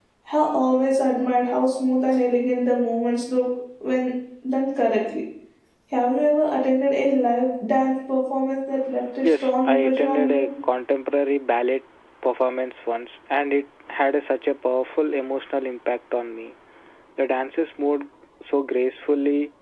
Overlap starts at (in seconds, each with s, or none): 9.2 s